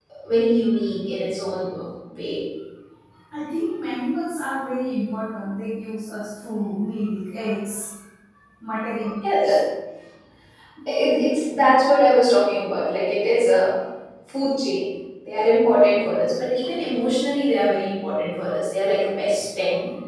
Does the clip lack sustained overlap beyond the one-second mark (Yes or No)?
Yes